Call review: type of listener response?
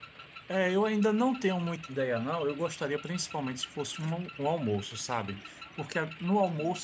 listening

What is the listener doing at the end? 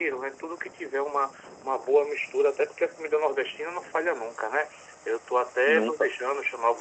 listening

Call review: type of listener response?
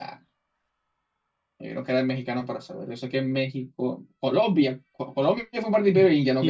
taking over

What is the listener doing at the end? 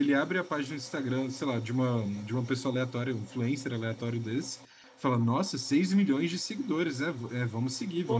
listening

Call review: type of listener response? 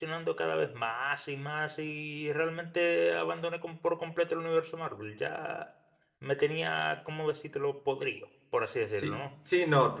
taking over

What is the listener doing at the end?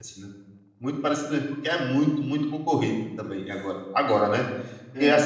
listening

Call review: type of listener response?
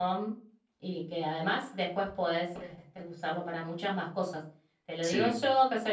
listening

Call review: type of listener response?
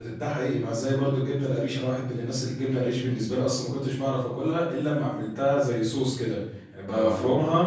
listening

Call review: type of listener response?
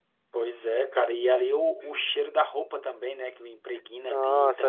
taking over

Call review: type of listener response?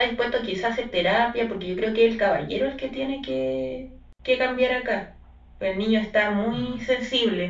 listening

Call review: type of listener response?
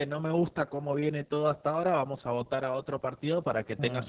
listening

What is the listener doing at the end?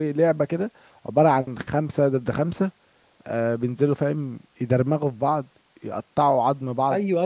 taking over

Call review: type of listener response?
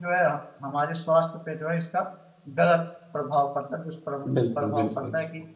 taking over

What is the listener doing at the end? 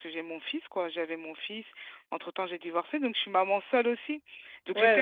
taking over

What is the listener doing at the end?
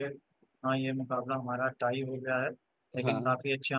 listening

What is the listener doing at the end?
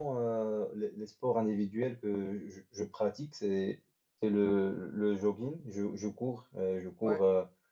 listening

